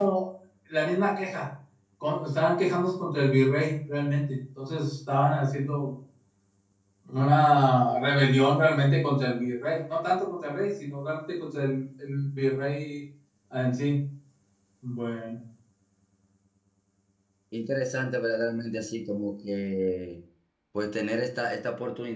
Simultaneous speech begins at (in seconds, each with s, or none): none